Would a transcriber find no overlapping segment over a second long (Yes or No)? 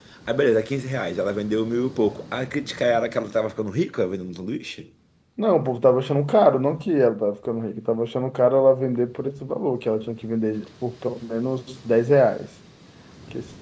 Yes